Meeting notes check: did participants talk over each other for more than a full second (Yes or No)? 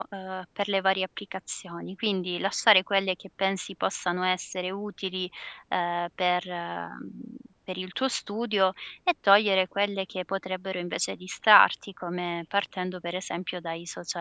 No